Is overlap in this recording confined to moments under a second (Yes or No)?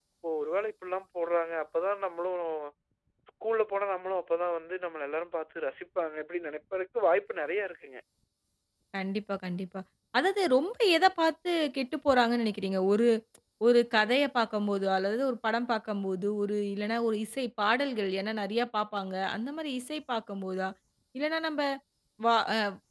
Yes